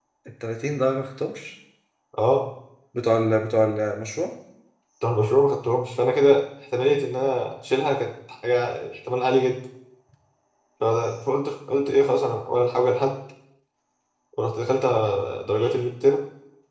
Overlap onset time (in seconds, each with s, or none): none